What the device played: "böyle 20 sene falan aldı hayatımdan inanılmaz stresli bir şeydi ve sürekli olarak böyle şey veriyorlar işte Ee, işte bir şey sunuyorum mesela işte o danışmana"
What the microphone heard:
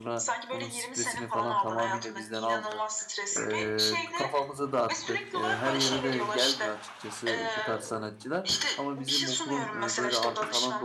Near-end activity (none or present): present